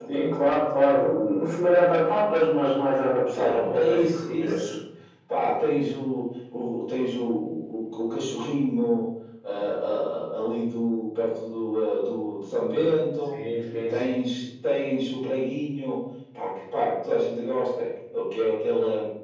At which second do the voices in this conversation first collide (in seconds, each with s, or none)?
3.3 s